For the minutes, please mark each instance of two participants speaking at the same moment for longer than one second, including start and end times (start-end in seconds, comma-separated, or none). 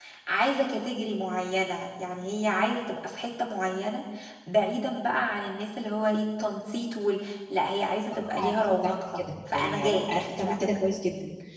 8.1-10.7